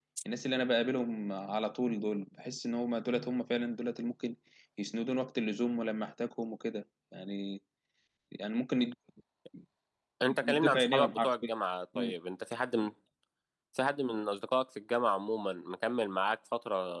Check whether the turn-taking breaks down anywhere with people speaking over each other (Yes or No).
Yes